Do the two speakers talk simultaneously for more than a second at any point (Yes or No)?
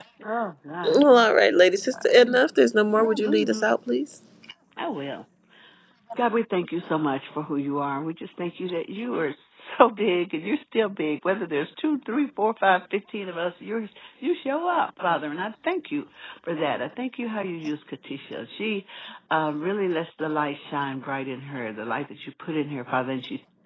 No